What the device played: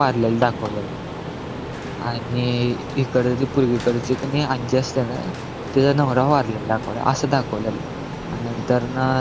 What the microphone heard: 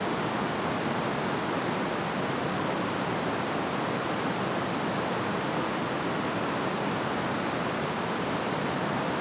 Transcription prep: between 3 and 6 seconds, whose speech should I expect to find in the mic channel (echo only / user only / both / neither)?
neither